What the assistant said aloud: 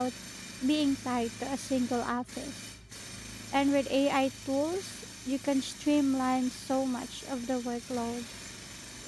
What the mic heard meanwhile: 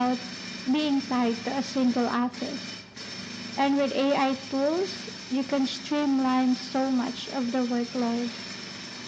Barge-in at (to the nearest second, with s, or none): none